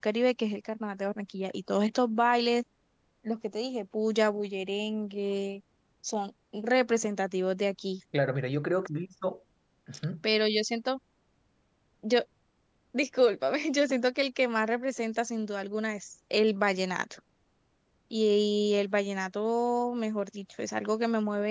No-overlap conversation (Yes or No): Yes